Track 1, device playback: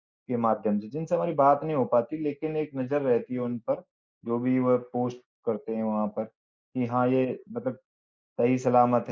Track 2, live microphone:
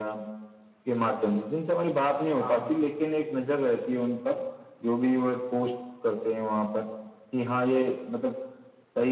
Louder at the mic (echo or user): echo